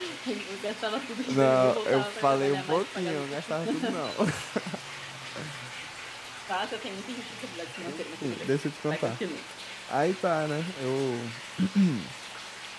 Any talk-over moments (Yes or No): Yes